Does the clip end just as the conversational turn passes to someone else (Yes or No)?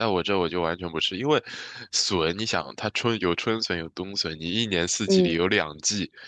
No